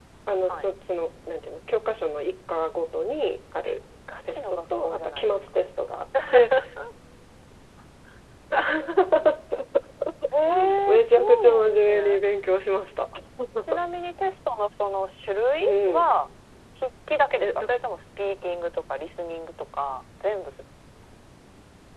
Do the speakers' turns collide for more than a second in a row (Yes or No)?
Yes